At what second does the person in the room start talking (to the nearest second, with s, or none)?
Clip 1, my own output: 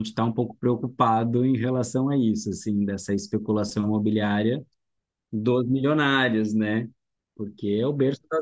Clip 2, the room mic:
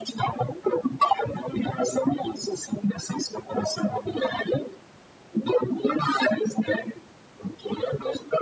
none